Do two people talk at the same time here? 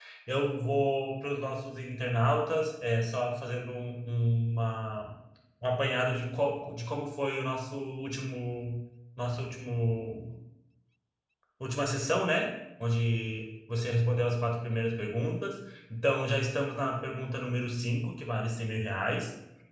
No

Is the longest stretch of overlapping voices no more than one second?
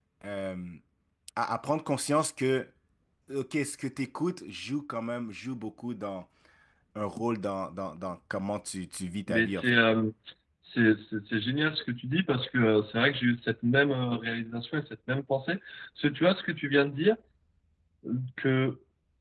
Yes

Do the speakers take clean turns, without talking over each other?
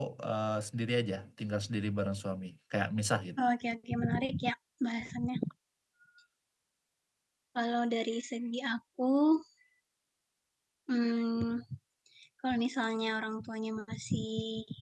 Yes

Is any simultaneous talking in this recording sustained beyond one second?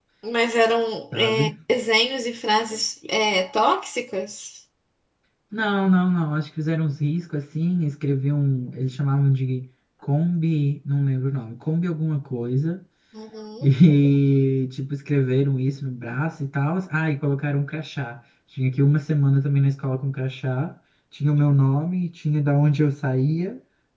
No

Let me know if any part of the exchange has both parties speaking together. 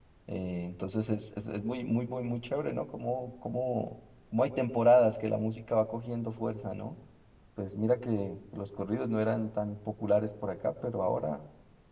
No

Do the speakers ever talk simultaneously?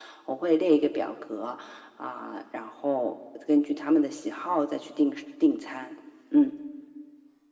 No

